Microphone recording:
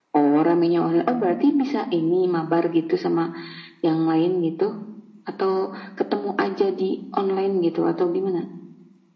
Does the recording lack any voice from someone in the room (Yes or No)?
Yes